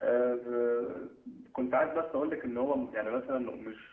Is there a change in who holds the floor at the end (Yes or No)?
No